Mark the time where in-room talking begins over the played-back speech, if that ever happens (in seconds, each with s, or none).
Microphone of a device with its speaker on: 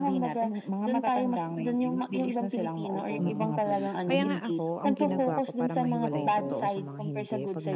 3.2 s